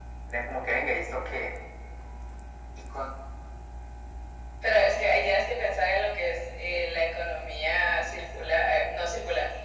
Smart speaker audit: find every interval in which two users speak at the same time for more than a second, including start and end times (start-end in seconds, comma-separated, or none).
none